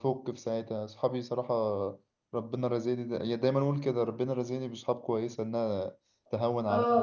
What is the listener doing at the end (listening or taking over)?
taking over